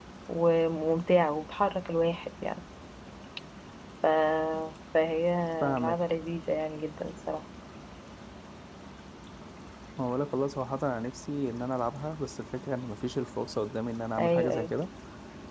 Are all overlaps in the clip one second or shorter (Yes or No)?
Yes